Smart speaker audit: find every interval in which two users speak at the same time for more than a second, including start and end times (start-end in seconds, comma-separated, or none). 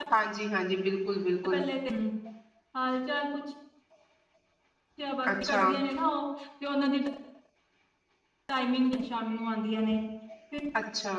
none